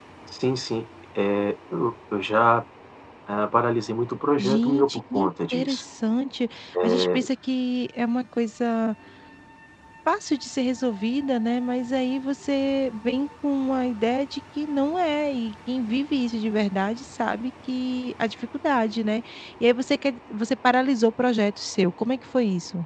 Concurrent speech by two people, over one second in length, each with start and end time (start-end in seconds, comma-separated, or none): 4.4-5.8